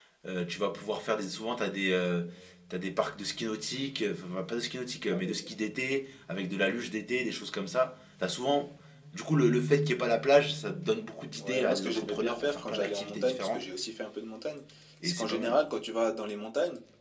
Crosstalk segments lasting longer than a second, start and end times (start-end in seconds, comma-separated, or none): 11.4-13.6